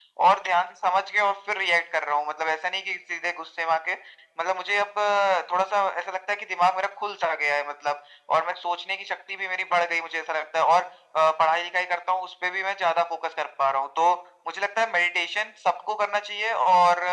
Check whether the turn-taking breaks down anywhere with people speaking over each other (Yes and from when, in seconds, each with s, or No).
No